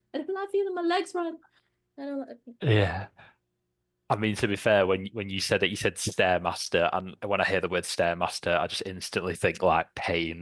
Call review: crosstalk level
none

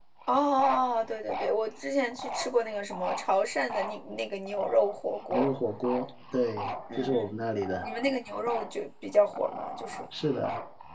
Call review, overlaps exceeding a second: none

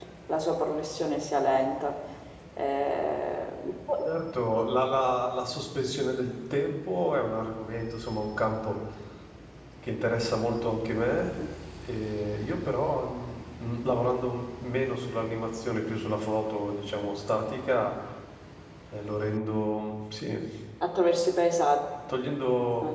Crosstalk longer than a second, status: none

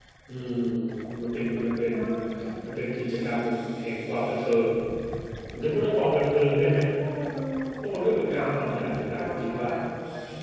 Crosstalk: present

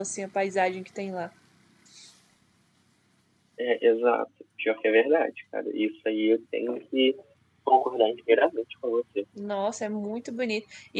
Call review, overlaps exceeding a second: none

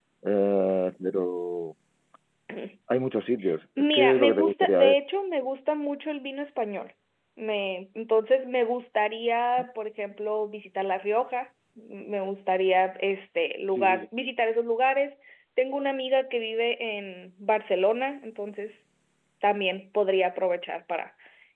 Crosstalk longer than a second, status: present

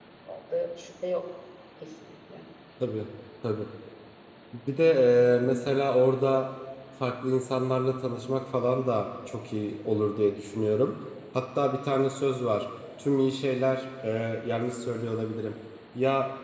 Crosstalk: none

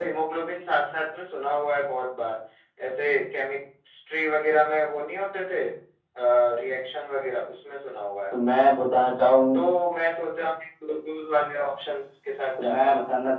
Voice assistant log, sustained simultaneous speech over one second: none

